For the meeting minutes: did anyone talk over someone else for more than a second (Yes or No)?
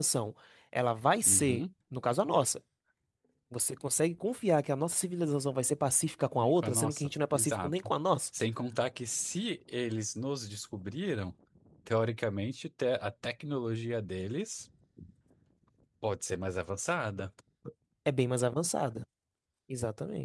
Yes